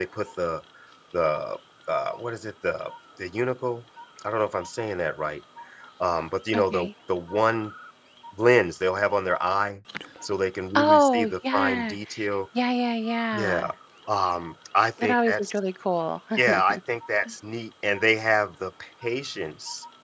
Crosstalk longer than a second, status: present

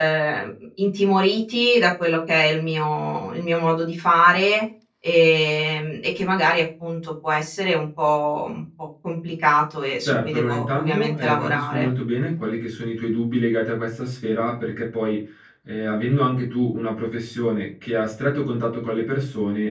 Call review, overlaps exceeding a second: present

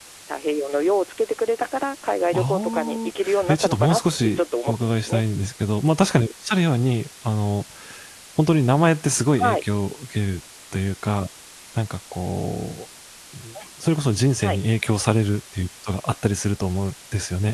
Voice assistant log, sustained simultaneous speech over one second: present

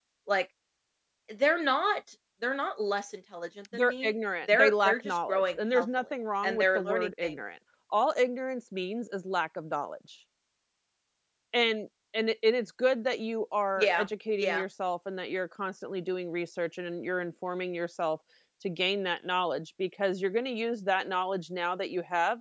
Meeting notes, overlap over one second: present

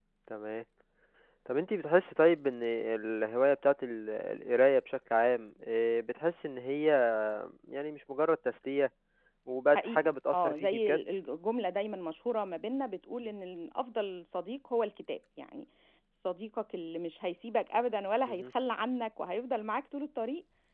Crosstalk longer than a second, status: present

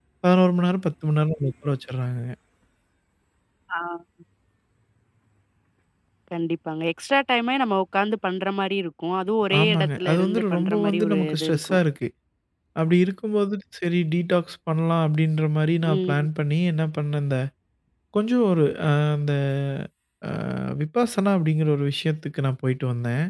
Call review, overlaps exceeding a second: present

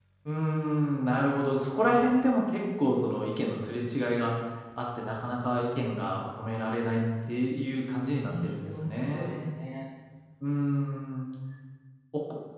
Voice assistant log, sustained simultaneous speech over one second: present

